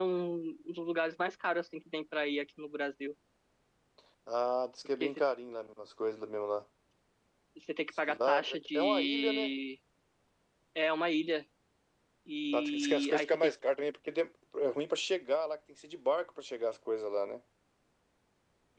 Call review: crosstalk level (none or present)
present